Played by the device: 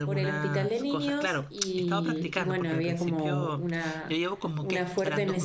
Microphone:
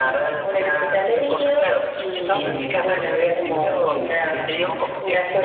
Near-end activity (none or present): present